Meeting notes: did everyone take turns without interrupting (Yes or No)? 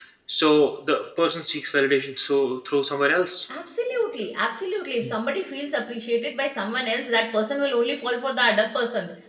Yes